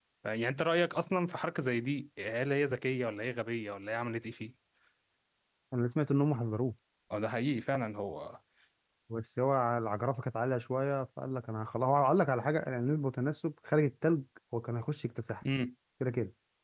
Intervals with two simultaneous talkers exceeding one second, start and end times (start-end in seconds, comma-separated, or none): none